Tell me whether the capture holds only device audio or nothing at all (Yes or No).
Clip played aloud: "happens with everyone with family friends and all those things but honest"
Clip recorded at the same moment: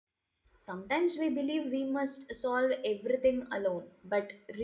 No